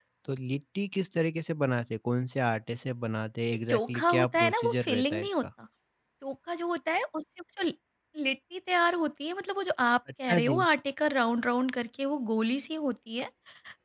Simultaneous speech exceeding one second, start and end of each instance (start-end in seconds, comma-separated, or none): 3.7-5.4